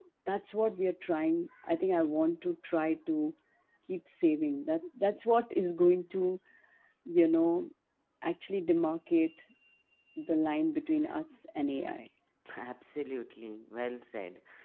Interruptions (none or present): none